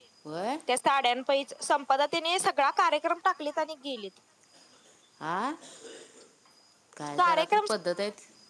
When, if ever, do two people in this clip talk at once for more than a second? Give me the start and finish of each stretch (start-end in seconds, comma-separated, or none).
none